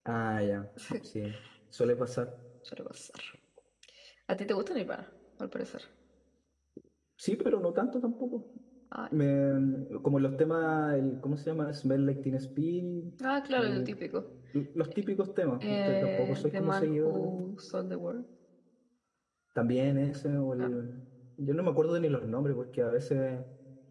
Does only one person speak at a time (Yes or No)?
No